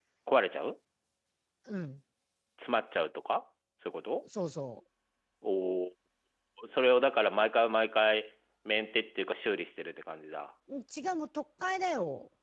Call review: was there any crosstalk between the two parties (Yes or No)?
No